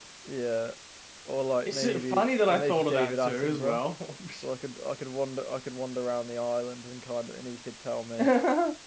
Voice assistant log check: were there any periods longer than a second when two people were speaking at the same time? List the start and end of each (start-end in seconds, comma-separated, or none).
1.7-3.8